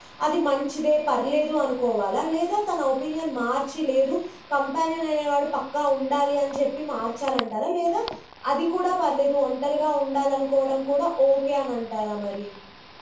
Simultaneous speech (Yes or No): No